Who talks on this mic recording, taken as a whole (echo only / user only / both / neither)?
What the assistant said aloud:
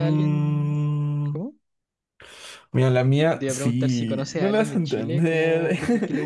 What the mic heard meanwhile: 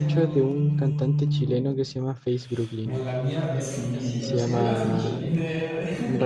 both